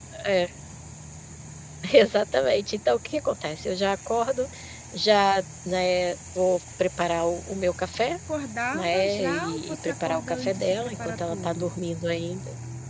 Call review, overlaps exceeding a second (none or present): present